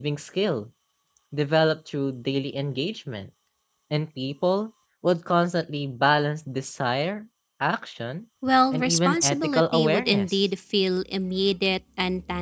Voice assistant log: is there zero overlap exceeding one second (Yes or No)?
No